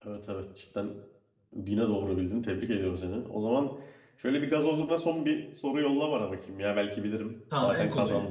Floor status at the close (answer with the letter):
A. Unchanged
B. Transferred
B